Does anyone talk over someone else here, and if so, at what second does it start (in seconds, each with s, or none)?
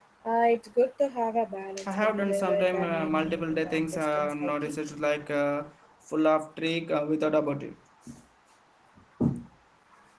1.8 s